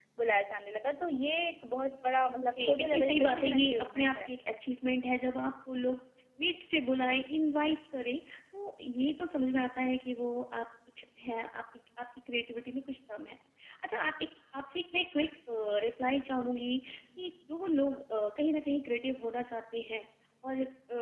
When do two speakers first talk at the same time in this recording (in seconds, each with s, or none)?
2.3 s